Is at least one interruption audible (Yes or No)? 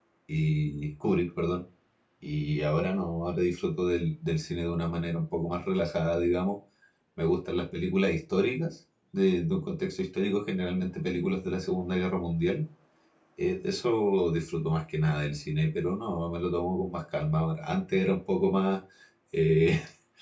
No